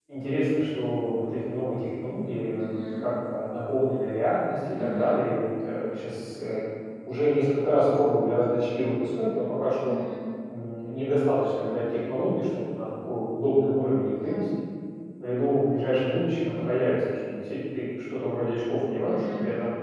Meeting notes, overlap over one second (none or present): none